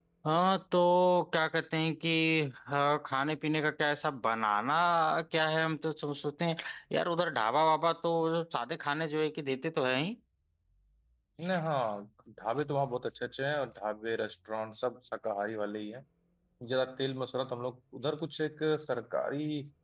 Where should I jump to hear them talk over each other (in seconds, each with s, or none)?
none